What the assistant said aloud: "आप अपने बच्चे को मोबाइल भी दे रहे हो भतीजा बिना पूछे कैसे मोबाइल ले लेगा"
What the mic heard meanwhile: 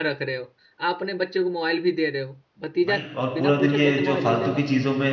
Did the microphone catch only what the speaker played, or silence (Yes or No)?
No